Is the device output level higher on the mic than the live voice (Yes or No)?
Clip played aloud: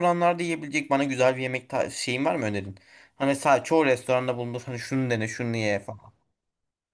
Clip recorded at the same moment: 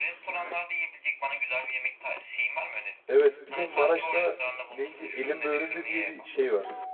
No